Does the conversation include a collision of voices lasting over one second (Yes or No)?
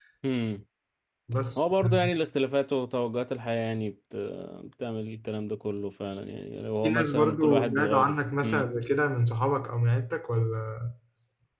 Yes